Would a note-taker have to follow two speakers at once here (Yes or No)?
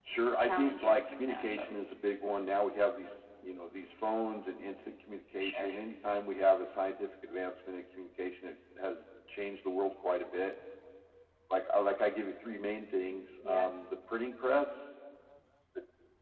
Yes